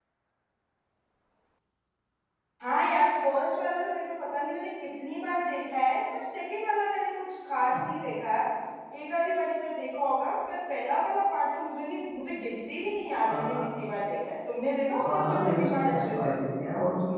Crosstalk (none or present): present